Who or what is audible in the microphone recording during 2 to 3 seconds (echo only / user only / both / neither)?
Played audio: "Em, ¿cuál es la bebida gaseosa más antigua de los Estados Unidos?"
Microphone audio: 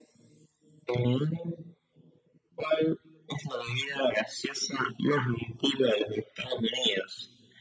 echo only